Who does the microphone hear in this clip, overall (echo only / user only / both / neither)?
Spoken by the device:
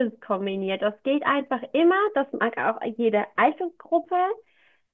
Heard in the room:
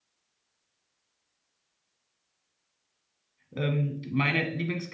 user only